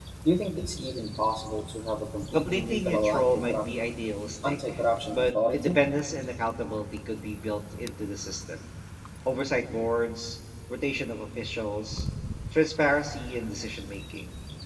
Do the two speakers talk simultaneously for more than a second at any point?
Yes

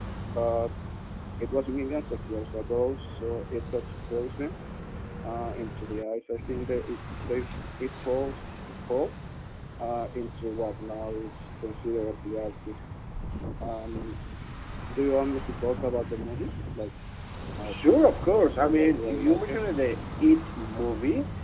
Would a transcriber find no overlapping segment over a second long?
No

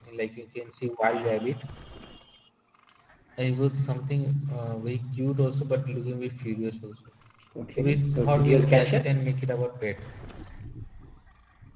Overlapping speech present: Yes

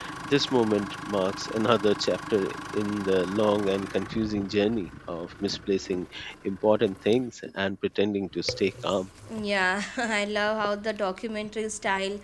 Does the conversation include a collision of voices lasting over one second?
No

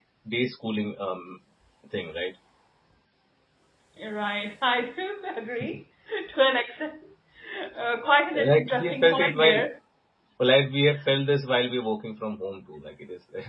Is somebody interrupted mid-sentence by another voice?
Yes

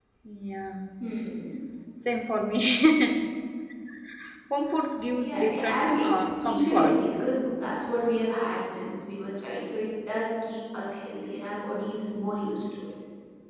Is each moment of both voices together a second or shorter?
No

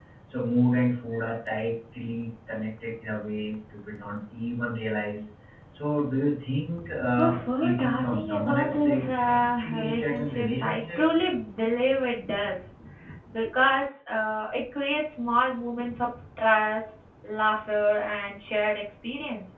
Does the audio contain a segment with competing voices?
Yes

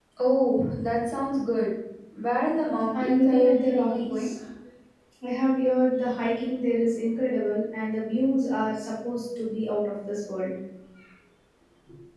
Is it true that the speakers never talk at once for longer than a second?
No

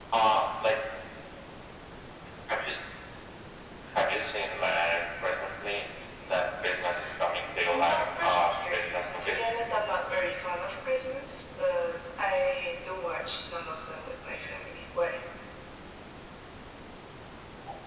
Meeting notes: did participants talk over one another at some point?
Yes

